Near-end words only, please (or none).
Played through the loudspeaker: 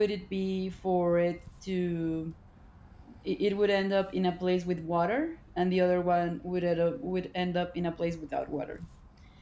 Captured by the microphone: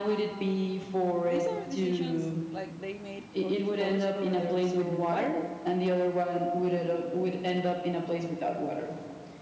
these are decisions like they made, of course, for their survival.